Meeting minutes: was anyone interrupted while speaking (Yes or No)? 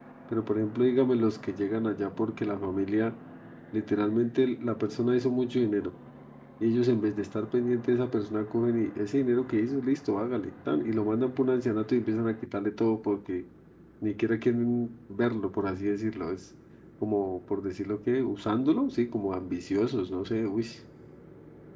No